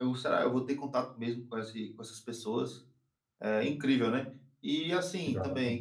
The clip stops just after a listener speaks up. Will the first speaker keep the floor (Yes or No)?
Yes